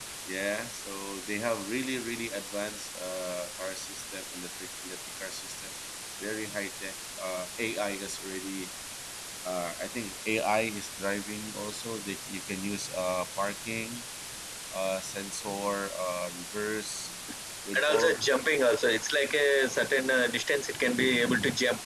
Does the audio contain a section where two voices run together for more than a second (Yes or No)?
No